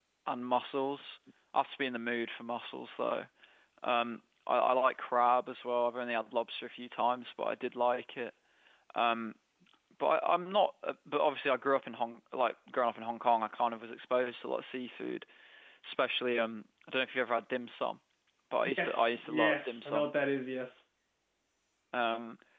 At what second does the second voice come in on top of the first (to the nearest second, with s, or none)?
19 s